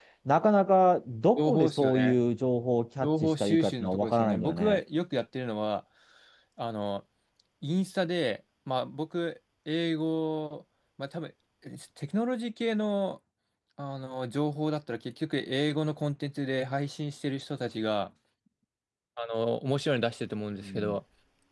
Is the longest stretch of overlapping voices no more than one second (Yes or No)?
No